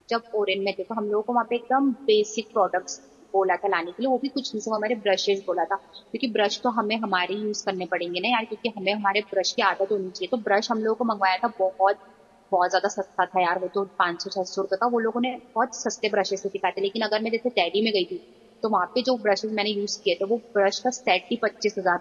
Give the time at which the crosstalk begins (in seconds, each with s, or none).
none